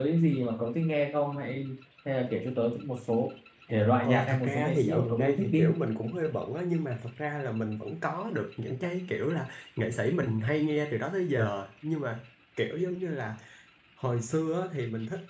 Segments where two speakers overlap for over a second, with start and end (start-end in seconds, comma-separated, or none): 4.0-5.8